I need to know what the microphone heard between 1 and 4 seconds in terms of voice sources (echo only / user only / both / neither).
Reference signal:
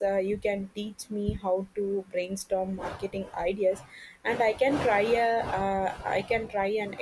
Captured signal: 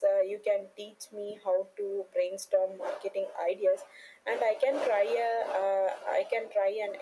echo only